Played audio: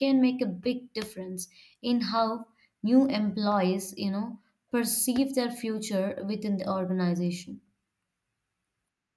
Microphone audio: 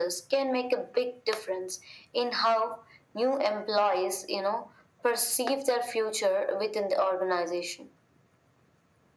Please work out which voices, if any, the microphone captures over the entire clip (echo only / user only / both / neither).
echo only